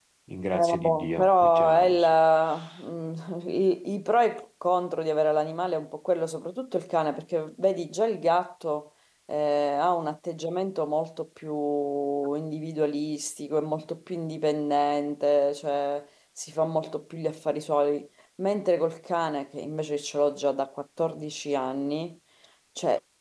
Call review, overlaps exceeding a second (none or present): present